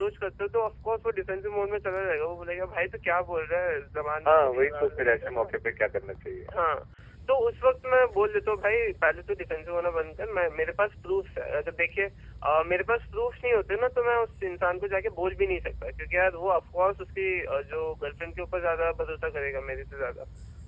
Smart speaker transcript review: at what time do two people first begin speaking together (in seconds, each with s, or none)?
4.2 s